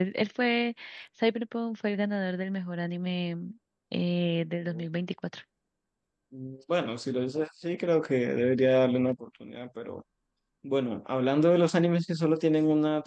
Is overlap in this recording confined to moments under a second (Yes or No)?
Yes